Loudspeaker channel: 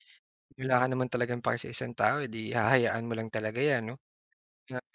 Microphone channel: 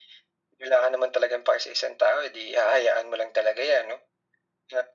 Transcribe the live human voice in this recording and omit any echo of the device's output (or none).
none